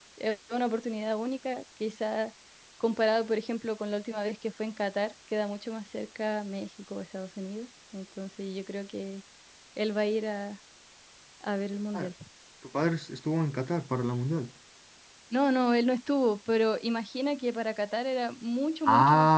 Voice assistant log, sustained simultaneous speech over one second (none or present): none